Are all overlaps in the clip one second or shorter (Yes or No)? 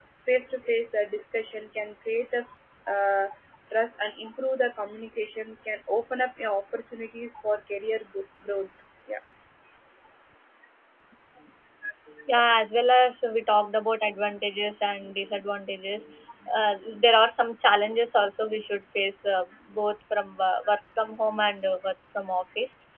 Yes